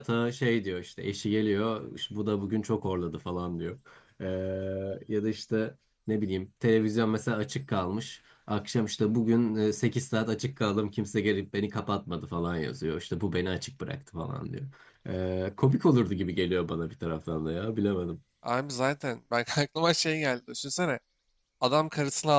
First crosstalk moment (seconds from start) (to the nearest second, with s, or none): none